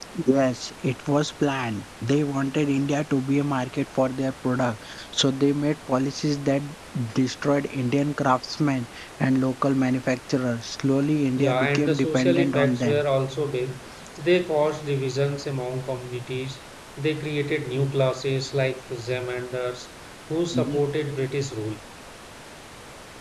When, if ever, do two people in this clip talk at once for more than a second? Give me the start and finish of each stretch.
11.4-13.0

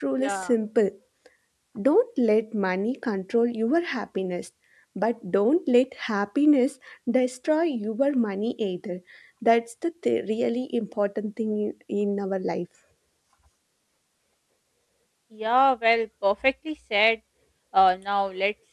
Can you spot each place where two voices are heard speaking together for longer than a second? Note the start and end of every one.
none

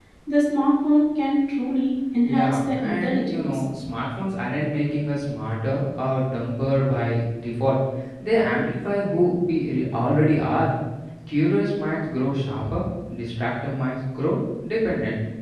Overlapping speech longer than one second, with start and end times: 2.2-3.5

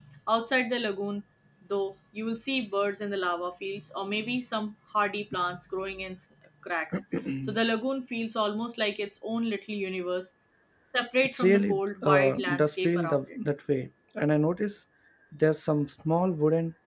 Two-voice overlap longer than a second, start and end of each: 11.2-13.2

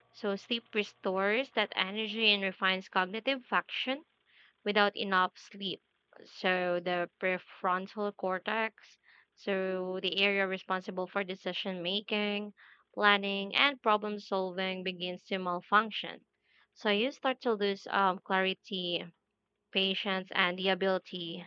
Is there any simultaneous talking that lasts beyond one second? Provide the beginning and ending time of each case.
none

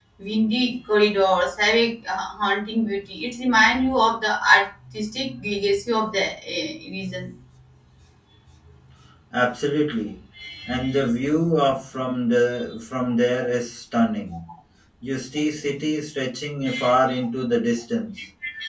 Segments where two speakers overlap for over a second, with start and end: none

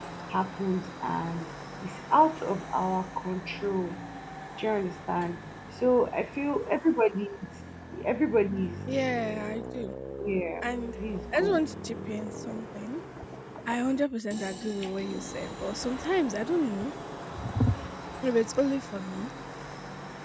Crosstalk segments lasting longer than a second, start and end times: none

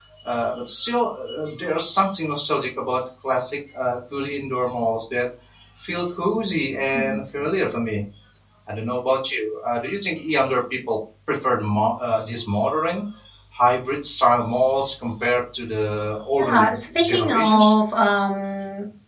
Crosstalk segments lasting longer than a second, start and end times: 16.4-17.7

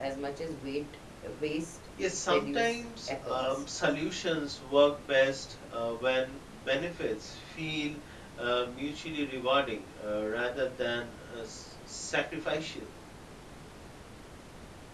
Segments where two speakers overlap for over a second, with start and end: 2.3-3.6

